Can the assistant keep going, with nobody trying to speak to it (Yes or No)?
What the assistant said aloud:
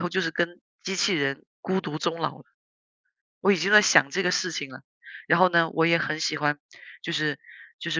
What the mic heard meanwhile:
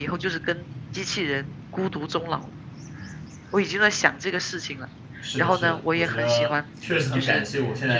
No